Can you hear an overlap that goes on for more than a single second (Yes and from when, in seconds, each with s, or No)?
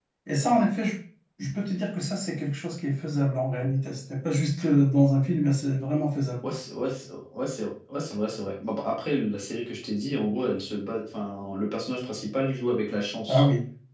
No